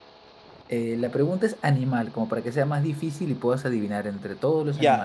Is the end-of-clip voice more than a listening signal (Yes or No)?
Yes